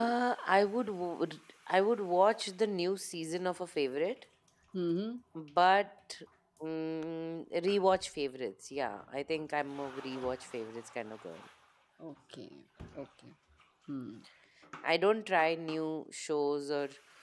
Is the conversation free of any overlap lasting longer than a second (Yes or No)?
Yes